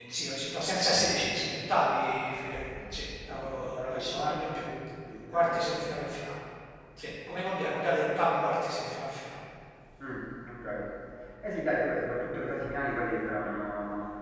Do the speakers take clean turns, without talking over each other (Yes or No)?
No